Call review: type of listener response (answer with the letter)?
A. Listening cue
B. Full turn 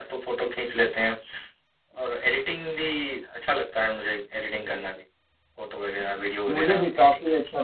B